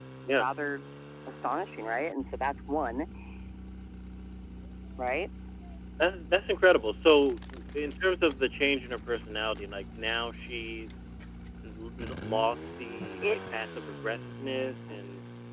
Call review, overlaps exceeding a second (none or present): none